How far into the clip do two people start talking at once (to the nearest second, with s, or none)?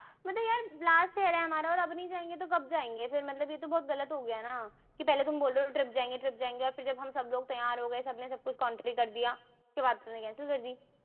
none